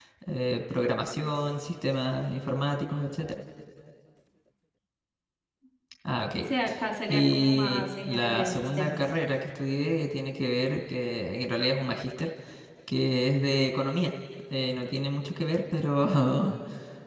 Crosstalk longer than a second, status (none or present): present